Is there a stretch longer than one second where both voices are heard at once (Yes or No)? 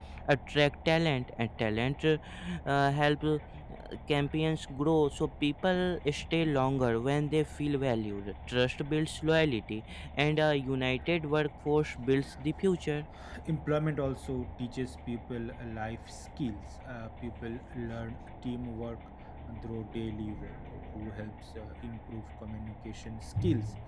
No